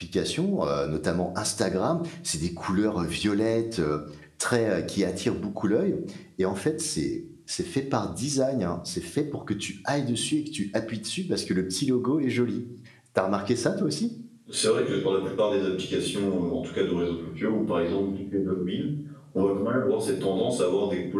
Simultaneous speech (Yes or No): No